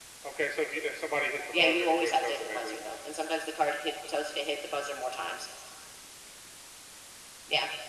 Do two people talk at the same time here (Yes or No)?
Yes